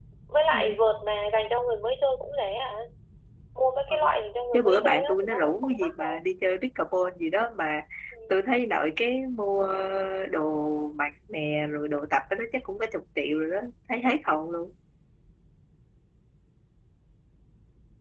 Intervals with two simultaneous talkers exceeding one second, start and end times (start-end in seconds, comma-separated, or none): 4.5-6.2